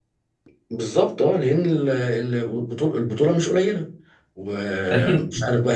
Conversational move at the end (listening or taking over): listening